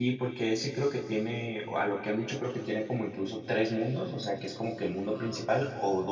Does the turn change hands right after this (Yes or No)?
No